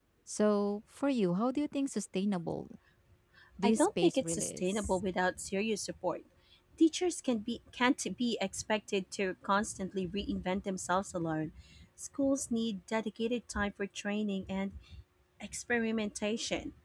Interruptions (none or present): present